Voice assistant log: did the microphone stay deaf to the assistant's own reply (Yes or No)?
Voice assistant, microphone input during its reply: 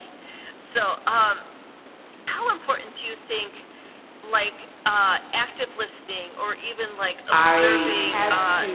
No